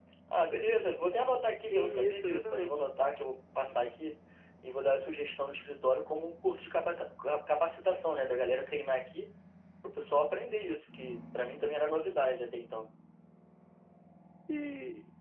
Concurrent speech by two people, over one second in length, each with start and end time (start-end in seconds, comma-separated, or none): 1.6-2.8